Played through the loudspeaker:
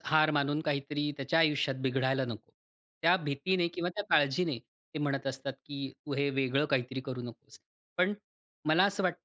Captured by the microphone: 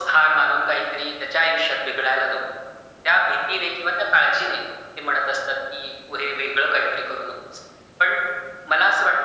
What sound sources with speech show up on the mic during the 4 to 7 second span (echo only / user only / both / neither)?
echo only